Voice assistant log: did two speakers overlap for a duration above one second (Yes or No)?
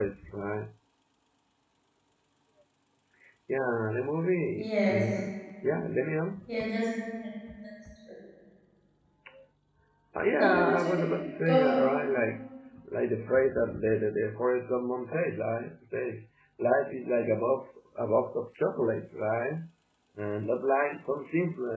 Yes